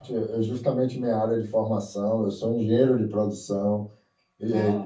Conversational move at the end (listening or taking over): listening